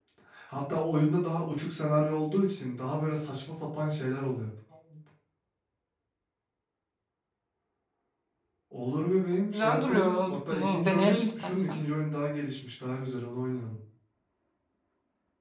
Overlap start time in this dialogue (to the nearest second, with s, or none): 10 s